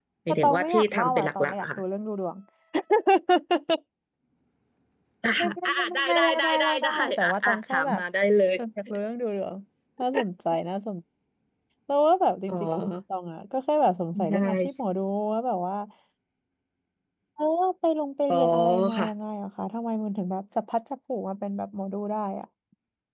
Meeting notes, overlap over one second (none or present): present